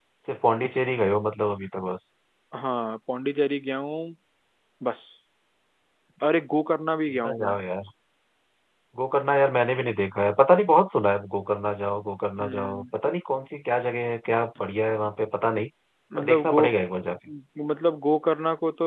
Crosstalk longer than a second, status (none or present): none